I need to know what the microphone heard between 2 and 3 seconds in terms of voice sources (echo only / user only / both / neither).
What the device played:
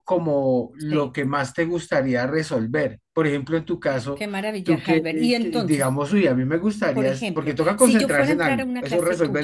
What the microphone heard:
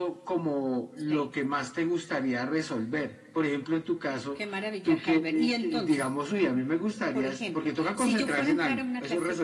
echo only